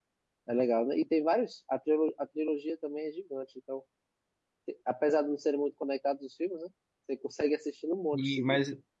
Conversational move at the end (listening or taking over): taking over